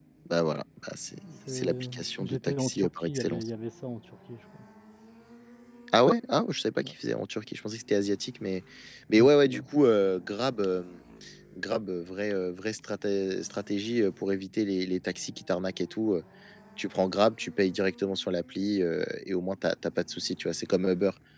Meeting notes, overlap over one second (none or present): present